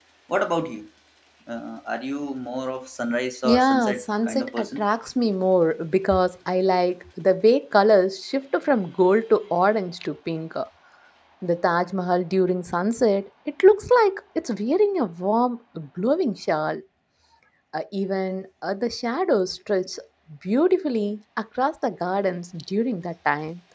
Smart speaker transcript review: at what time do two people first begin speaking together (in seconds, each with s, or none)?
3.4 s